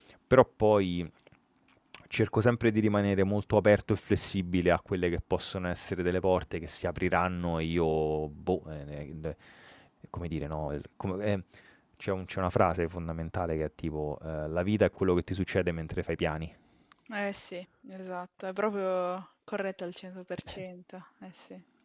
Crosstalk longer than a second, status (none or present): none